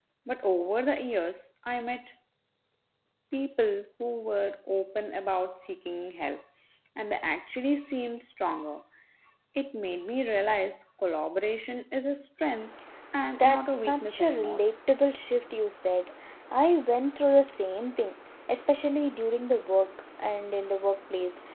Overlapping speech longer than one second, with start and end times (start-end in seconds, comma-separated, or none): 13.4-14.6